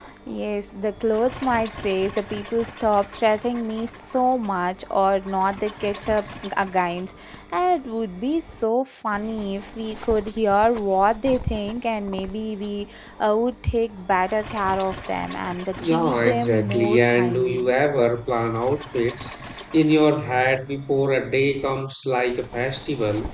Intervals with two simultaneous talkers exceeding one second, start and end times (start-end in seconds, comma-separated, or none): 15.8-17.7